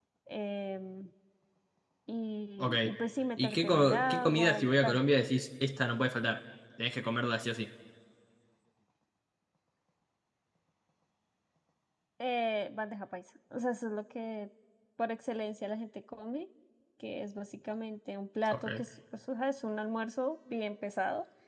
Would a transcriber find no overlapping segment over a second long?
No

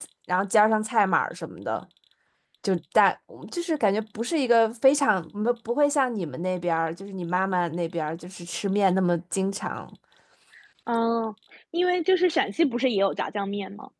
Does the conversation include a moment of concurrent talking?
No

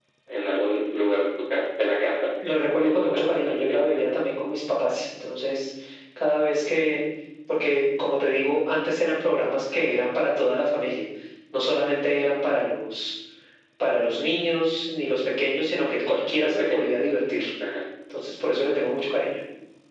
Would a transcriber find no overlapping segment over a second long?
No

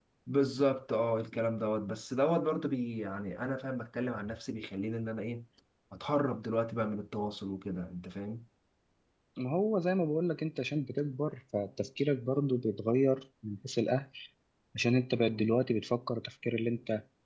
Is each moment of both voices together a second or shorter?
Yes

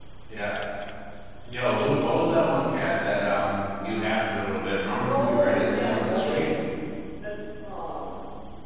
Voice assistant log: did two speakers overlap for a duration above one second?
Yes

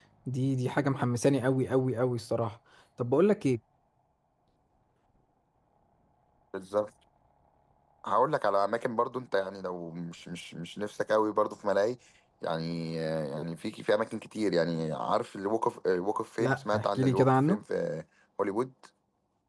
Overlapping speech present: Yes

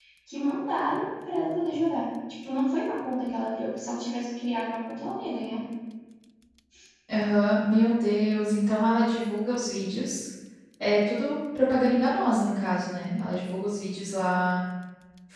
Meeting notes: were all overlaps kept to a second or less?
Yes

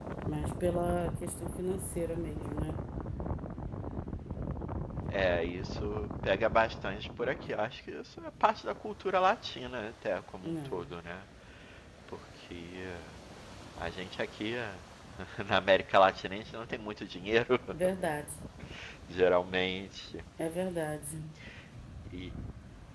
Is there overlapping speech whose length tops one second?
No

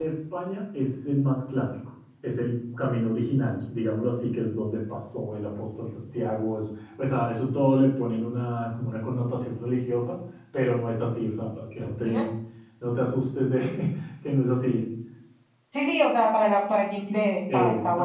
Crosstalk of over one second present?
No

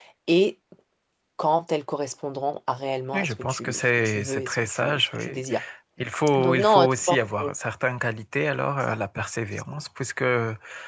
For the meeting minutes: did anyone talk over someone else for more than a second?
Yes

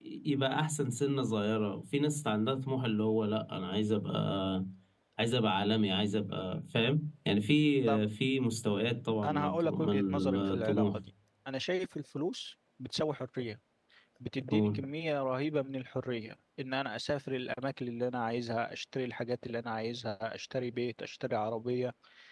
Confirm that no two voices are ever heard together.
No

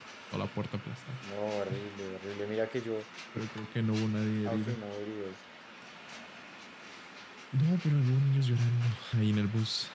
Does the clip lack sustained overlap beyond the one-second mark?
Yes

